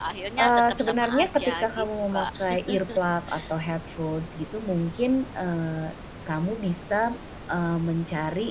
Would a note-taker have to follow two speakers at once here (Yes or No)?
Yes